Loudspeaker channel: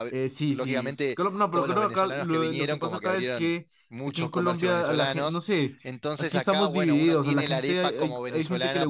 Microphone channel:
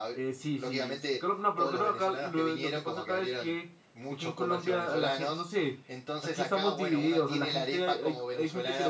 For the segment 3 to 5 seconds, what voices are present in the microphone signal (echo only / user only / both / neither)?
echo only